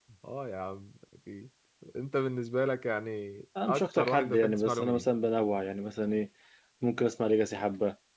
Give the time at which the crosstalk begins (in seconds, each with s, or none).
3.5 s